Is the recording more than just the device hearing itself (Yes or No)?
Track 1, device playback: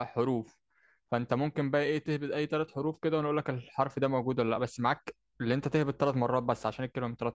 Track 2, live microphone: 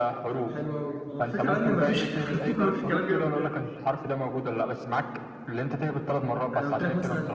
Yes